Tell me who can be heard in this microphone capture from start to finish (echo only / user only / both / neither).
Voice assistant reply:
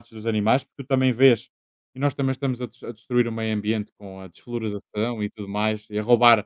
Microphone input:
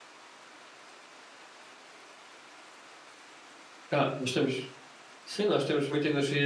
user only